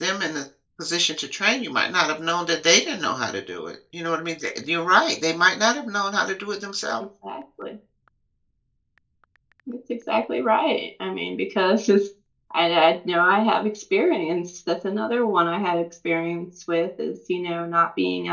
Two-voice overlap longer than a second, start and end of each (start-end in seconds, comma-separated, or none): none